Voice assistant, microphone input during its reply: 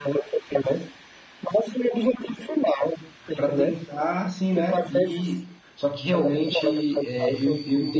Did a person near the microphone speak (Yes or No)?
Yes